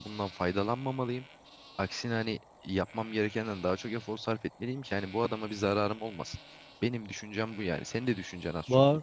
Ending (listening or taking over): taking over